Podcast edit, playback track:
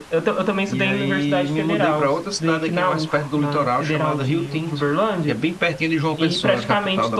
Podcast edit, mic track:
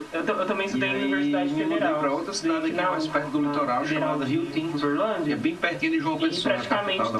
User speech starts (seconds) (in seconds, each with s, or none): none